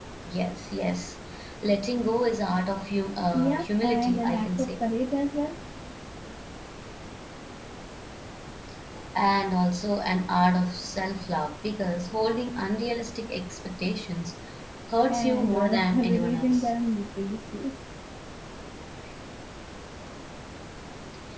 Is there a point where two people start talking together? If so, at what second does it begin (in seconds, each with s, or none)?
3.3 s